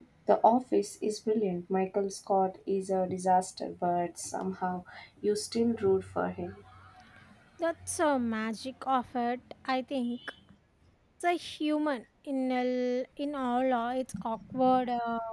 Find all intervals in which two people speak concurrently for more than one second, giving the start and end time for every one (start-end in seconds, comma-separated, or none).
none